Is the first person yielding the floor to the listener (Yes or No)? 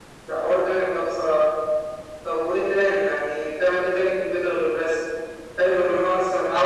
No